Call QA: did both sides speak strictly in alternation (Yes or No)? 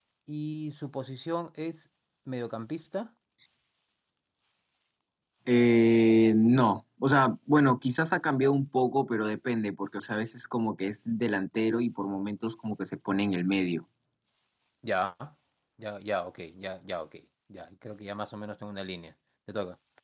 Yes